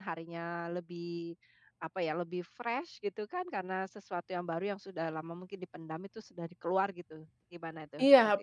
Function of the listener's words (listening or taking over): taking over